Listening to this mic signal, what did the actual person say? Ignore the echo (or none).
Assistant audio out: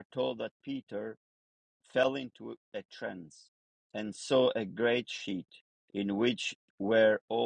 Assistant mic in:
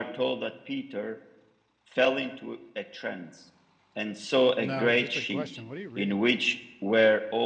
No, just a question. What are you reading?